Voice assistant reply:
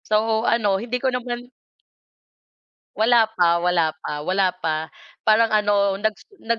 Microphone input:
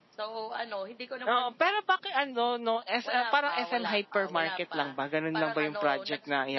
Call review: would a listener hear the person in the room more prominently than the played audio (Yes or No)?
Yes